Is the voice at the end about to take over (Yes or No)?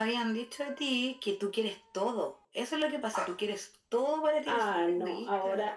Yes